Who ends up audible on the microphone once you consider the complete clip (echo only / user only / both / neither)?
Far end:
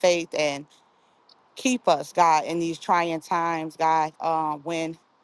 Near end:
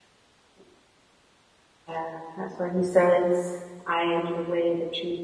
user only